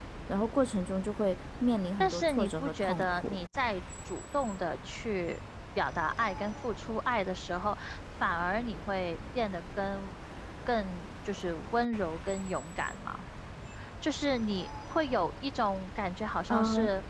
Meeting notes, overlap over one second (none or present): present